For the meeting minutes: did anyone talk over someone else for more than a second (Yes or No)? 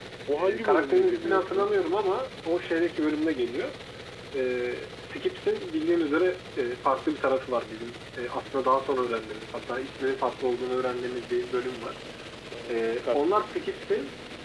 Yes